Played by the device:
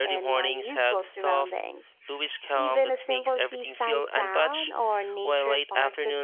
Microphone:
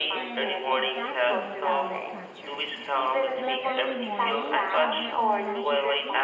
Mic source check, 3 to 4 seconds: both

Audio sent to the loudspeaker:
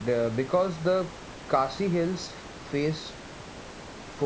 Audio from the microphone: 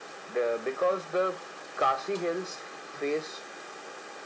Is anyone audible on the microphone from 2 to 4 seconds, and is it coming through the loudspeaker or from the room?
echo only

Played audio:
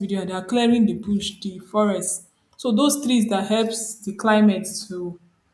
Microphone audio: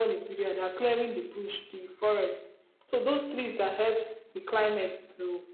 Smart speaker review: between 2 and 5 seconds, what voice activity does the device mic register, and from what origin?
echo only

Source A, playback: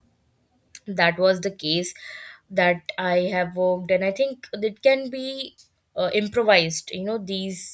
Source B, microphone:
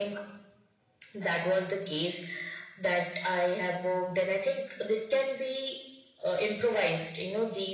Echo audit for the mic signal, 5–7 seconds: echo only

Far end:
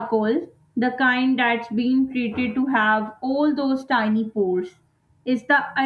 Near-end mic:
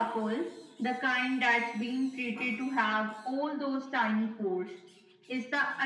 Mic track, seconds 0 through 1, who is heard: echo only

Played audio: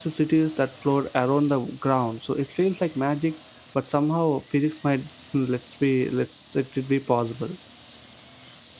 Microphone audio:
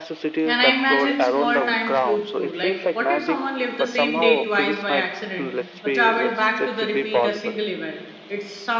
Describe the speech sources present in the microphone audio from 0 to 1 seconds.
both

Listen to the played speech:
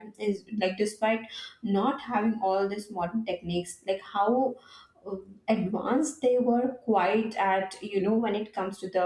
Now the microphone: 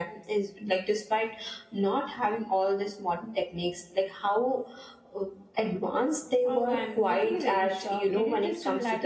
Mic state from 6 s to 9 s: both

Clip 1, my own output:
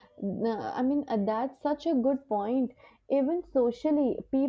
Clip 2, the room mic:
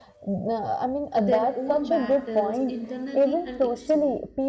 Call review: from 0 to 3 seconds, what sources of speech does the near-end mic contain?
both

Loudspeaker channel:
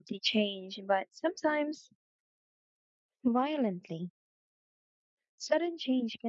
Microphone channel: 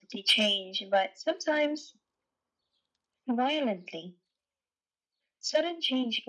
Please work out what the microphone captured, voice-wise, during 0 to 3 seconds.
echo only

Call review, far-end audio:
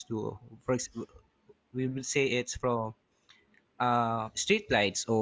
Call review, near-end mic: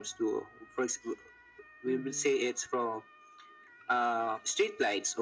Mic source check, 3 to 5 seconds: echo only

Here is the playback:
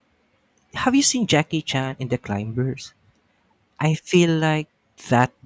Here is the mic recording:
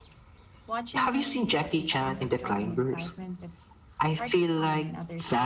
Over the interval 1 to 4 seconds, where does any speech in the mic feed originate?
both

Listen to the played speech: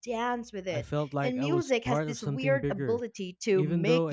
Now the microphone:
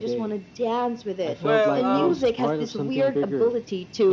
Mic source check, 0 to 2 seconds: both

